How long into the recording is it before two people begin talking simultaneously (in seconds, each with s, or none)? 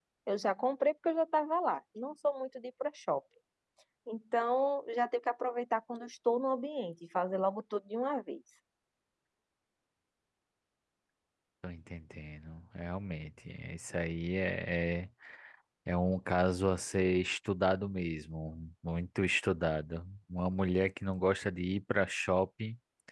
none